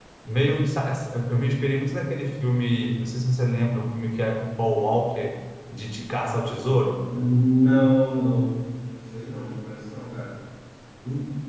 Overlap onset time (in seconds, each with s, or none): none